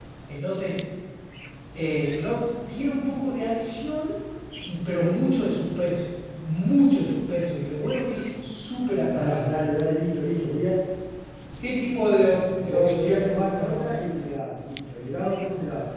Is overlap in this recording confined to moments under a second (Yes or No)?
No